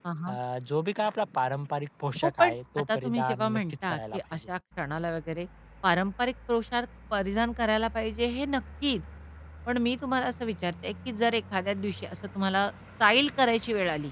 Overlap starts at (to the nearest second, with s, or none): 2 s